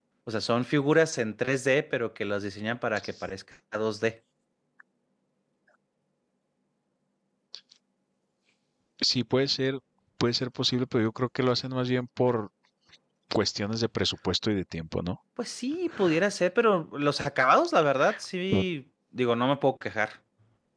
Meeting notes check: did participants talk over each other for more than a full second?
No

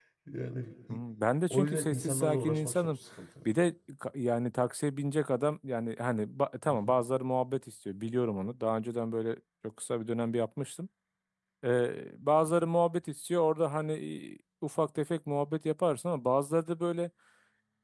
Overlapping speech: Yes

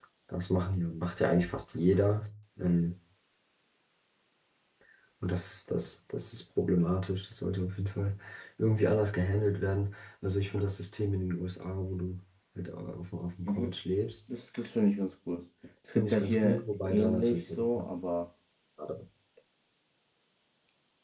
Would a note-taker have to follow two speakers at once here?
Yes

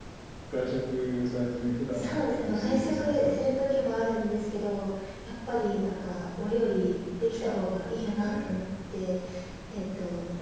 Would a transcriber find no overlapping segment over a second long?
No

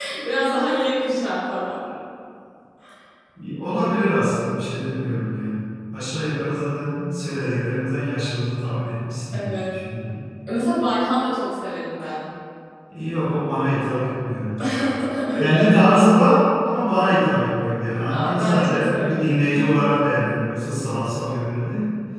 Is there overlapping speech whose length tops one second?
Yes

